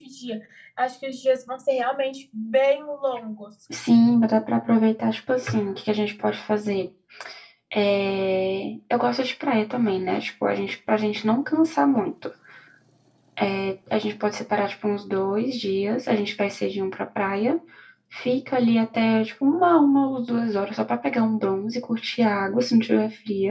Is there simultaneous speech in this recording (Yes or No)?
No